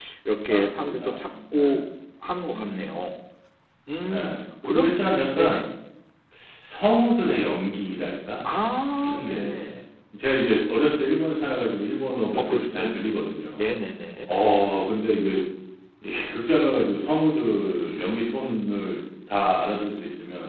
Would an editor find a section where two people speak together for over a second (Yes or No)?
Yes